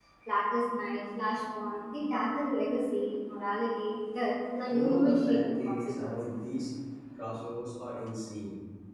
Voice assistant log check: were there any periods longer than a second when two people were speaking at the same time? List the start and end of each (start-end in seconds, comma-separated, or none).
4.7-6.1